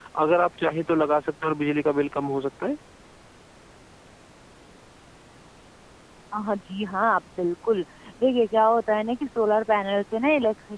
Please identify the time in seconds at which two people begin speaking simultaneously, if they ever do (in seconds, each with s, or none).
none